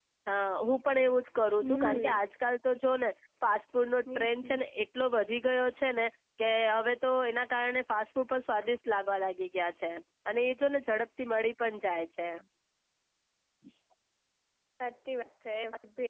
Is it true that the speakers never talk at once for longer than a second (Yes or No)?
Yes